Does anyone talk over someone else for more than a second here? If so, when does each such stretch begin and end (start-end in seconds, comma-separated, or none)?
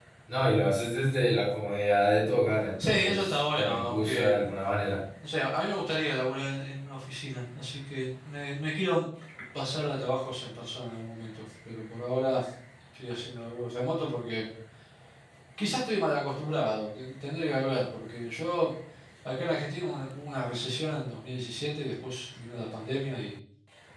2.8-4.4